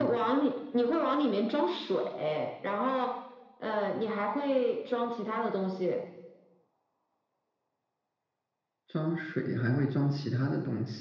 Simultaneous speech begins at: none

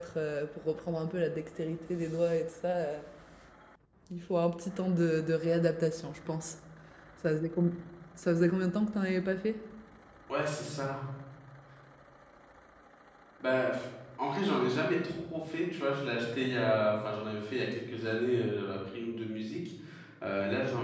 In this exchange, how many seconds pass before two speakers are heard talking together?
none

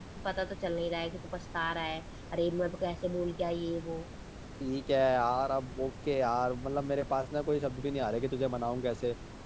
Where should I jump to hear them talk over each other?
none

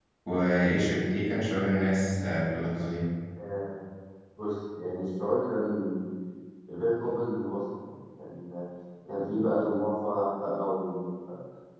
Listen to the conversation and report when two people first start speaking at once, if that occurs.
none

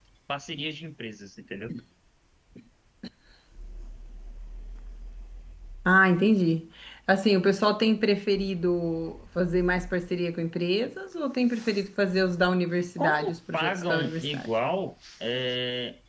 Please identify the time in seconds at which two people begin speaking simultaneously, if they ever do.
13.0 s

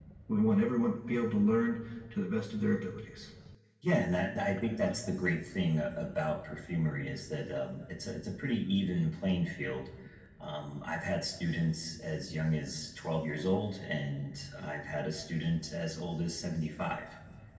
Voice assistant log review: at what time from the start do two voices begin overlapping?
none

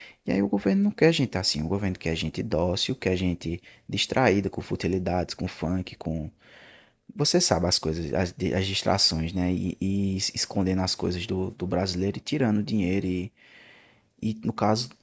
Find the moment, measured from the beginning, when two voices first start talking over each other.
none

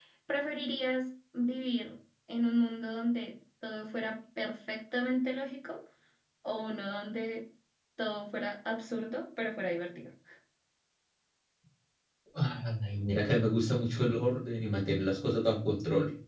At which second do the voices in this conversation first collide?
none

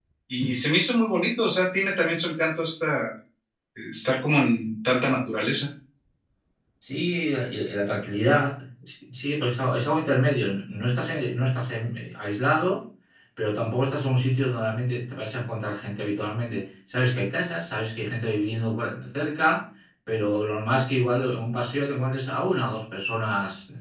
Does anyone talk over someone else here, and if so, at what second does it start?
none

